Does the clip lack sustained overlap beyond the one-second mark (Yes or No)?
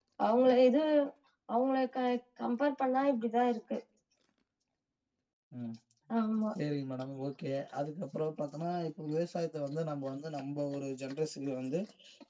Yes